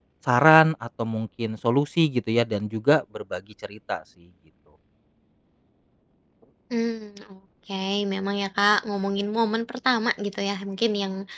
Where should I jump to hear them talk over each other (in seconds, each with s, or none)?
none